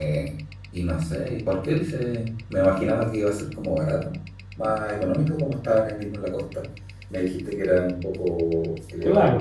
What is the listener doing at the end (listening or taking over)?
taking over